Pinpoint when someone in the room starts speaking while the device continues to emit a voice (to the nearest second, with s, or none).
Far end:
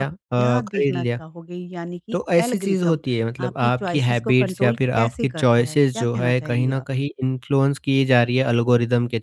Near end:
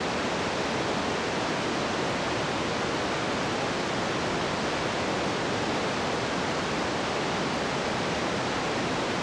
none